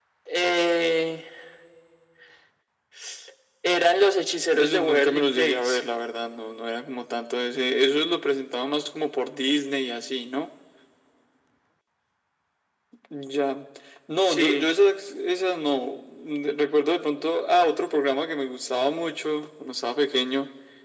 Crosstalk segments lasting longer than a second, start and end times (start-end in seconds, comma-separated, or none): 4.5-5.8